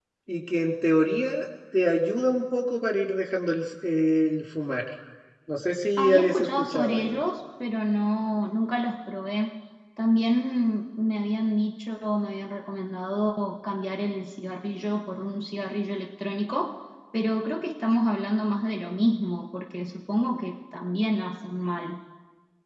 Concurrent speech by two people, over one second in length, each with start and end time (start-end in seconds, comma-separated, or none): 6.0-7.2